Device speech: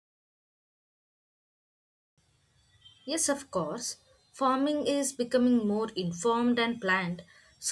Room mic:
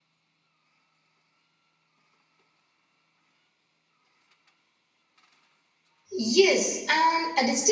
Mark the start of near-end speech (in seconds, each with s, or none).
6.2 s